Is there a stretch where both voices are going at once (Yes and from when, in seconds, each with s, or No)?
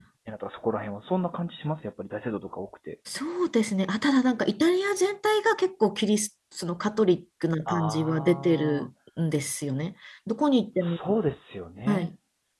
Yes, from 7.7 s